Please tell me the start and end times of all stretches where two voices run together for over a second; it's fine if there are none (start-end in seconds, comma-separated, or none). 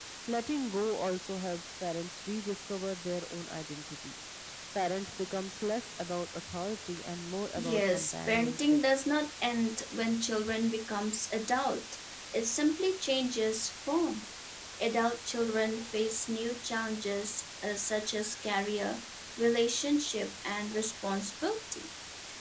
7.5-8.8